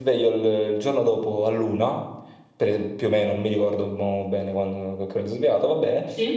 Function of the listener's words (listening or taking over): listening